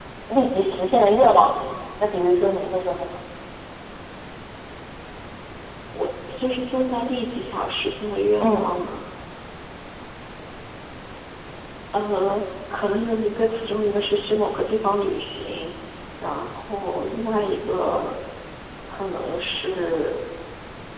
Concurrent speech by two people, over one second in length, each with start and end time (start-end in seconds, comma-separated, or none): none